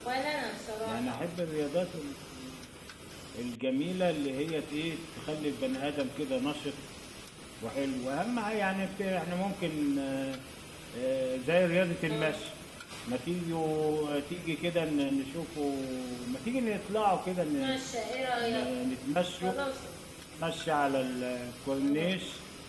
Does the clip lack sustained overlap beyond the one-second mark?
Yes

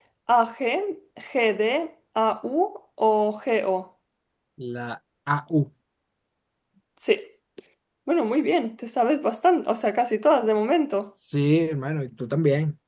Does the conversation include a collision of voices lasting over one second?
No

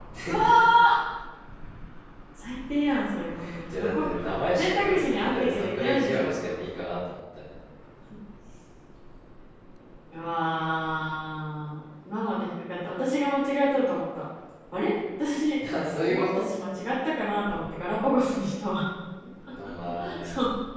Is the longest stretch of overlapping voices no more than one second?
No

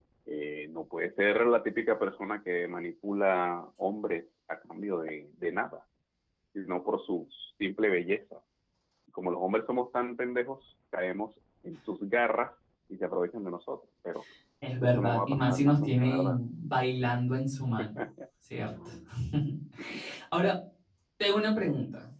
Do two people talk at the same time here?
Yes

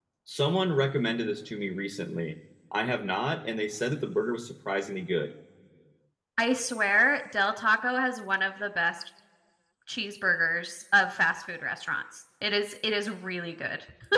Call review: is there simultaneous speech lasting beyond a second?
No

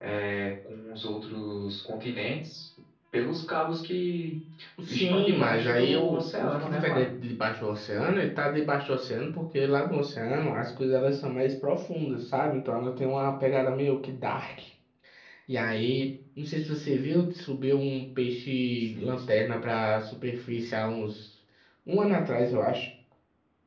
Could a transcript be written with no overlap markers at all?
No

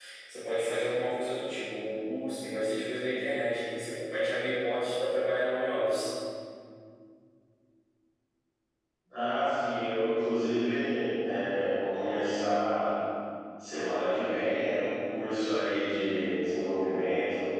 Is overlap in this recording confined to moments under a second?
Yes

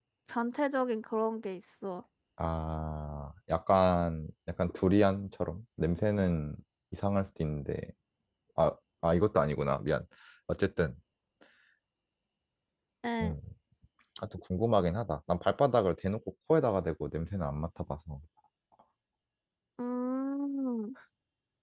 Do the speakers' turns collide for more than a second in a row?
No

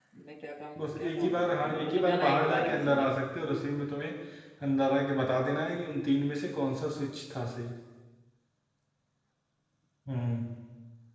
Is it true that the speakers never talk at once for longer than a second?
No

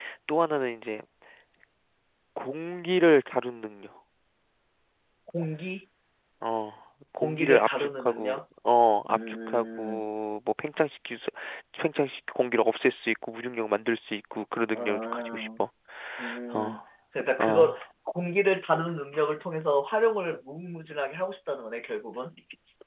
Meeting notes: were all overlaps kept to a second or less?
No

